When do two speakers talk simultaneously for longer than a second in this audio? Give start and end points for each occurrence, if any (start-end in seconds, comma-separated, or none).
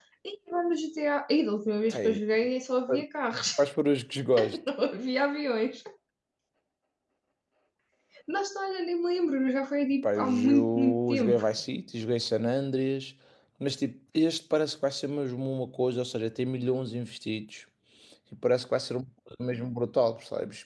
10.0-11.4